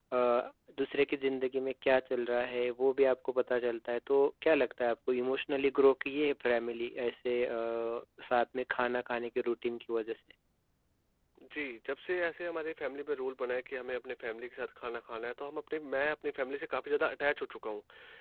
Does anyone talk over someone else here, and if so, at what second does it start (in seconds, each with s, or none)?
none